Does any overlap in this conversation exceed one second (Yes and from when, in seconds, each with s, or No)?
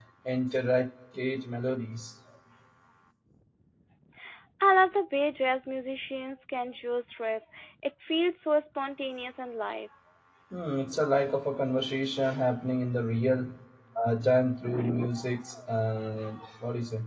No